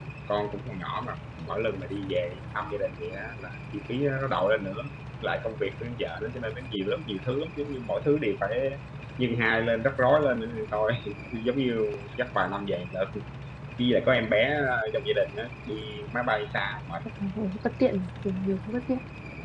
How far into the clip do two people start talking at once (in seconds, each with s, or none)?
none